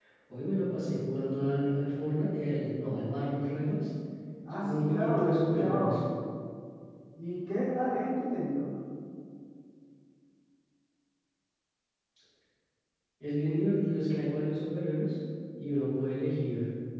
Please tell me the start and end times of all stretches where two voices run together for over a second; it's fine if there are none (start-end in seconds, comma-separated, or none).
4.6-6.0